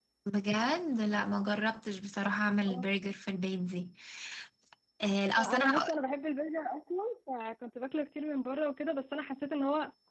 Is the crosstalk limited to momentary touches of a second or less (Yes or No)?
Yes